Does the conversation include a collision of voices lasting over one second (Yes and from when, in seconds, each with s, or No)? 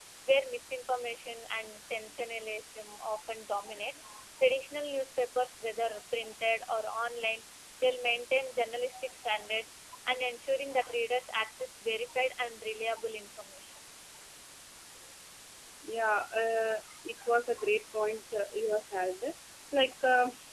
No